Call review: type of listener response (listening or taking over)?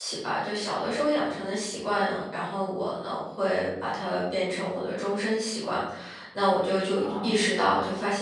listening